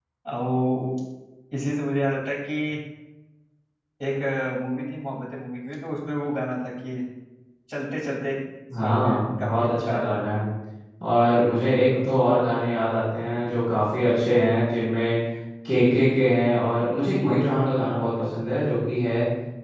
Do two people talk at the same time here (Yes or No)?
Yes